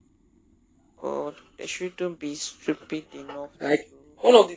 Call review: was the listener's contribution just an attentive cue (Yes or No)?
No